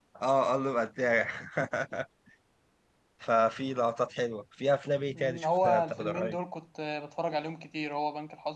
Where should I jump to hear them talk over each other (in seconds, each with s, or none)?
5.2 s